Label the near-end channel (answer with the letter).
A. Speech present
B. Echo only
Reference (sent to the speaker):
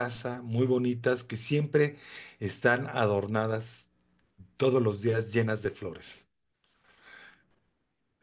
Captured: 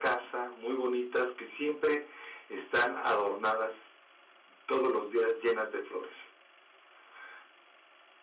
B